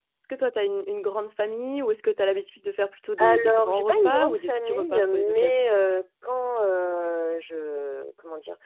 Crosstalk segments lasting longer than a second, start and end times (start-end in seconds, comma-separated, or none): 3.2-5.6